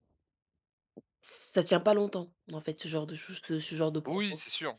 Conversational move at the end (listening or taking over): taking over